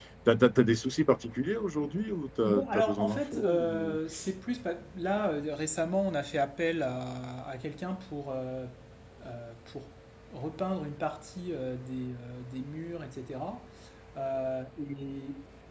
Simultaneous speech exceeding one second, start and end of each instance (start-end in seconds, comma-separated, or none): 2.4-4.0